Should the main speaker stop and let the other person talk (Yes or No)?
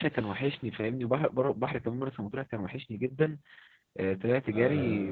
No